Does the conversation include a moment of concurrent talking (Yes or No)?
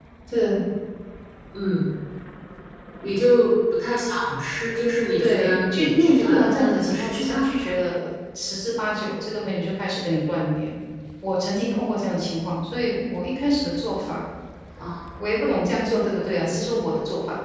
Yes